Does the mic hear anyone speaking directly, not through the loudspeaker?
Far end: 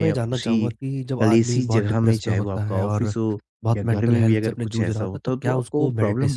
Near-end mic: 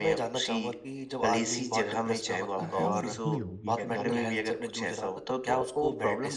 Yes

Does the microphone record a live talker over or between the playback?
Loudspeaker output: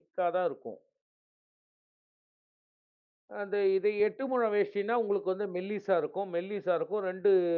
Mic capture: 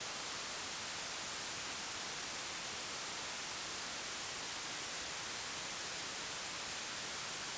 No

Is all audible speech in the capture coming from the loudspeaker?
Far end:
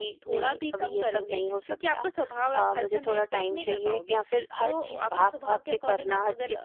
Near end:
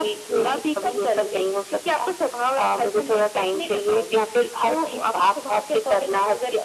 Yes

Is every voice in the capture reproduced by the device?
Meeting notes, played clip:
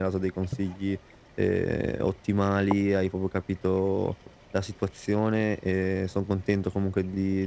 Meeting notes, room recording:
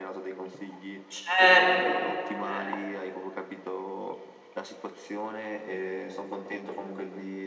No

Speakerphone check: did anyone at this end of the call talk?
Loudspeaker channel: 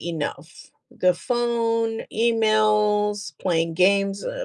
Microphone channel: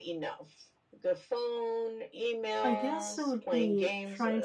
Yes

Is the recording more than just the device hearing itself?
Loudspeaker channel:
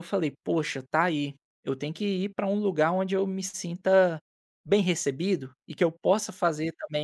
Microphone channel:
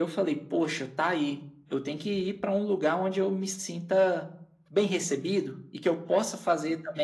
No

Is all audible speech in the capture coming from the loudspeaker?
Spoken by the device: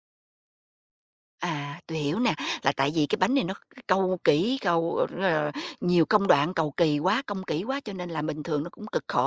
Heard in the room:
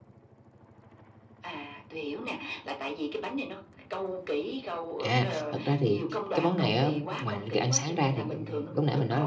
No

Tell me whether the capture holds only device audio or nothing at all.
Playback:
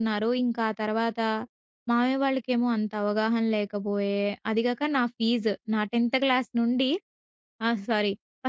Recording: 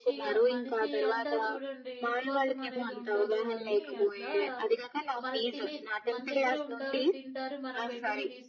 No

